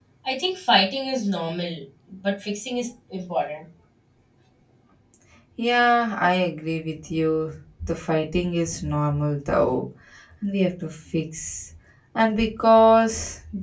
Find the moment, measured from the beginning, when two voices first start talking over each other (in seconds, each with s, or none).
none